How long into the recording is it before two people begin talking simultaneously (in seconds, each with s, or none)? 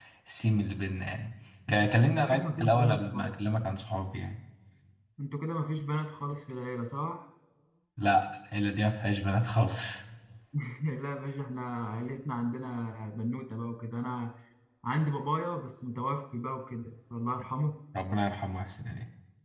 2.0 s